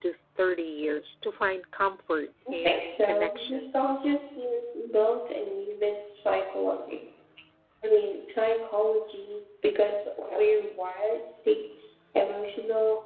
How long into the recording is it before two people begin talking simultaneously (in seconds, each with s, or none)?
2.5 s